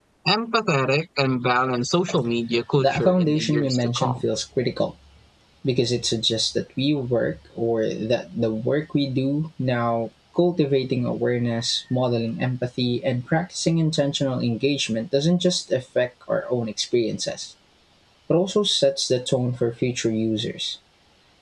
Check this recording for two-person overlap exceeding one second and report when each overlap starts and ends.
2.8-4.2

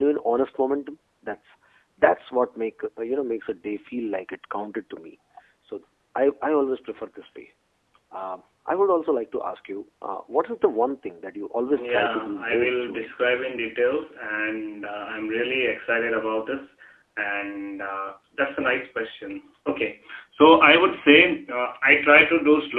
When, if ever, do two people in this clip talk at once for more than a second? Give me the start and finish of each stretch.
11.7-13.1

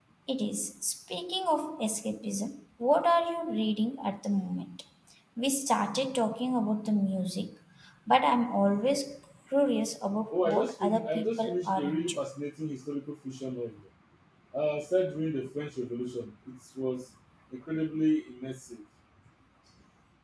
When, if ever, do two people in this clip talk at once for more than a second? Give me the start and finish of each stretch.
10.3-12.2

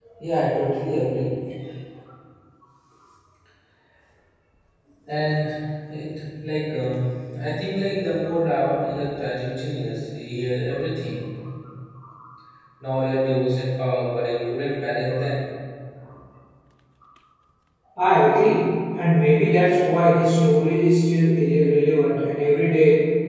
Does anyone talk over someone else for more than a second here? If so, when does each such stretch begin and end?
none

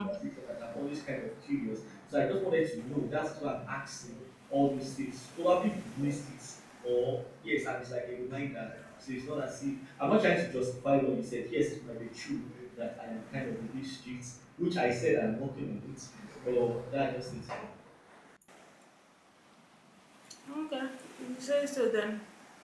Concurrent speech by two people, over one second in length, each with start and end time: none

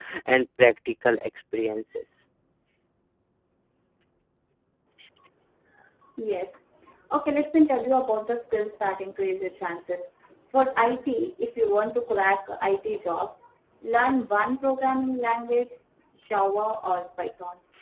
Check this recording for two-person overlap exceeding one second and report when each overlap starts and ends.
none

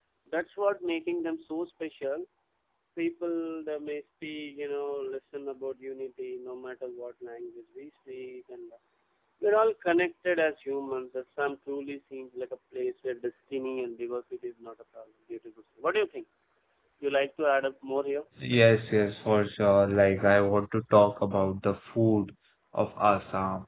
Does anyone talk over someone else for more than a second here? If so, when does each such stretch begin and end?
none

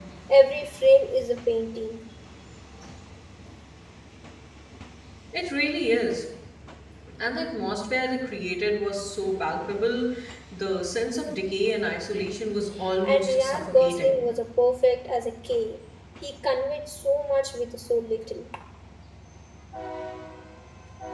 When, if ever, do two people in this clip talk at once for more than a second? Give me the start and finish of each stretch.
13.0-14.2

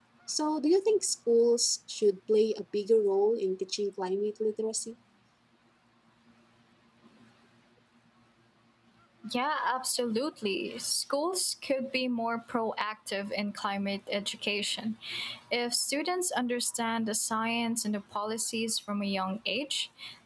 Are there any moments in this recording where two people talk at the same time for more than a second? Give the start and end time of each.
none

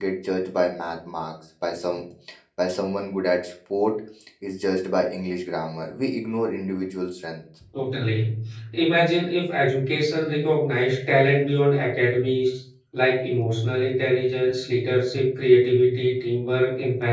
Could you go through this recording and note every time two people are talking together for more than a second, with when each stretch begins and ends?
none

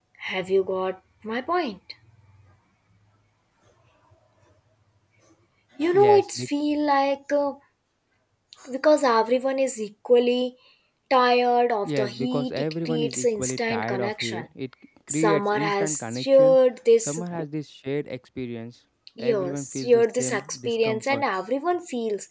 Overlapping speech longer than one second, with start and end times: 11.8-14.5, 15.1-16.6, 19.2-21.2

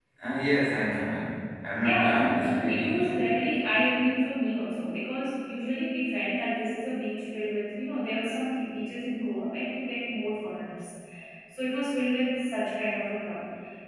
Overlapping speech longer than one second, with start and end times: 1.8-3.5

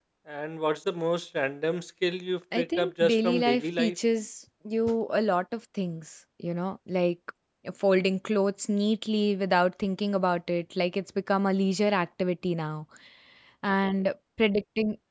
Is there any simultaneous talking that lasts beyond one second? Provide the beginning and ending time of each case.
2.6-4.0

